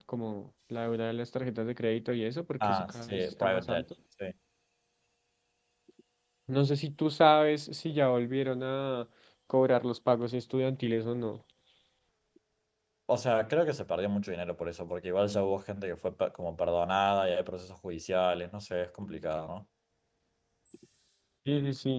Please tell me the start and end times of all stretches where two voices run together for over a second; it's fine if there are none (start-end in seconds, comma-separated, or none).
2.6-3.8